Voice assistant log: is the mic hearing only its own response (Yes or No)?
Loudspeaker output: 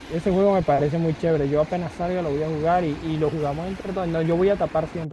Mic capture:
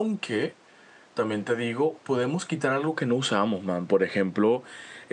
No